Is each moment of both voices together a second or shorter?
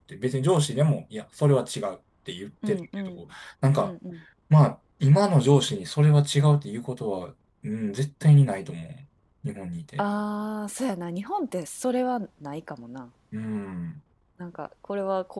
Yes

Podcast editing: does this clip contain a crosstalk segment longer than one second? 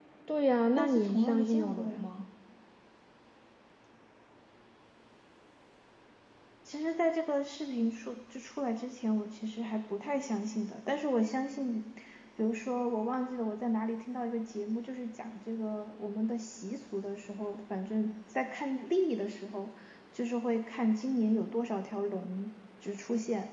Yes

